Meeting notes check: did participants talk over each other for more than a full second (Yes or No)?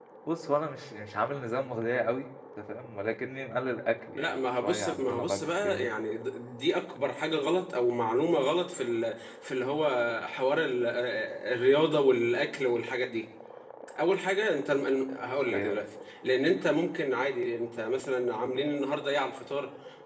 Yes